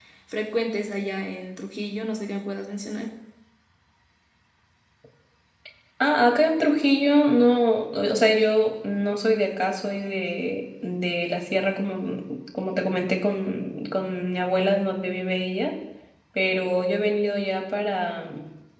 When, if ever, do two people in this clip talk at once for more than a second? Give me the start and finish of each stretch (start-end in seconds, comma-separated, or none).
none